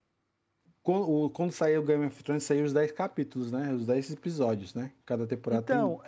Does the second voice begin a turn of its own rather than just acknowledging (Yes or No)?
Yes